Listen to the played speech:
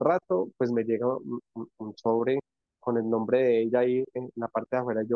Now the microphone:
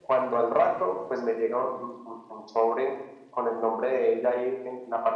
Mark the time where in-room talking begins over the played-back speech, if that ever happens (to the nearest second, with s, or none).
none